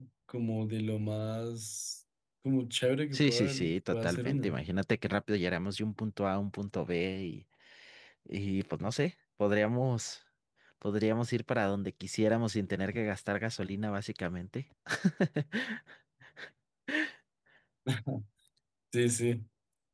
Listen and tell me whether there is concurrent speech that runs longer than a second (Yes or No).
Yes